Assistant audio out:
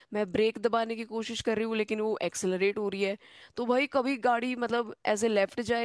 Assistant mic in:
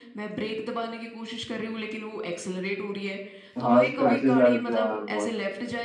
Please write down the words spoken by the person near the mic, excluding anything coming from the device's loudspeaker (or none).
हाँ स्क्रैचेस आ जाते हैं यार बहुत